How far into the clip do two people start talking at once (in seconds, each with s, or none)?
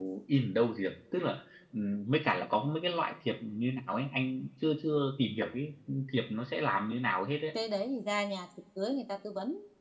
none